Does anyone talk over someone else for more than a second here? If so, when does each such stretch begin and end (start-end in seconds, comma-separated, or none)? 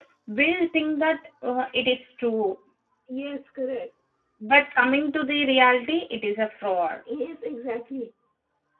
none